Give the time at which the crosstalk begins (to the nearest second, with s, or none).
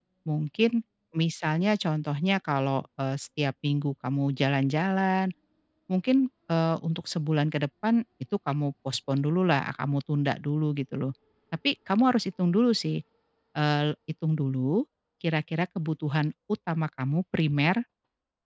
none